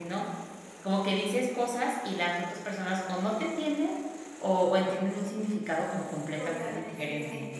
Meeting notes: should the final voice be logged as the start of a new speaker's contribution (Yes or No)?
Yes